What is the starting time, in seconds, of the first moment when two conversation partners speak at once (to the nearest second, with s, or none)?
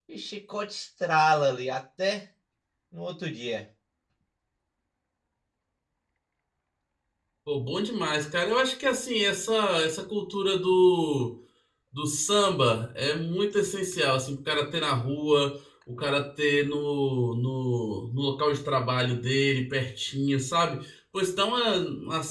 none